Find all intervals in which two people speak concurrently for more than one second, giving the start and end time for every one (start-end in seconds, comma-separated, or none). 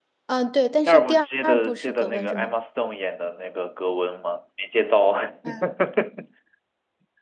0.8-2.5